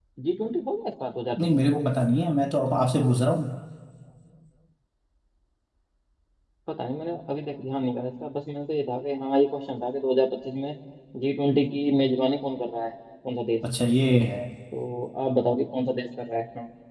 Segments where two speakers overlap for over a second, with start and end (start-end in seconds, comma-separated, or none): none